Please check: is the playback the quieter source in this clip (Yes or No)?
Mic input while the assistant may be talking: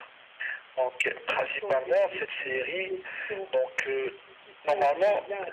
No